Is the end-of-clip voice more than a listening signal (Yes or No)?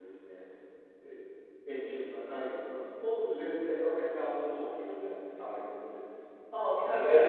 Yes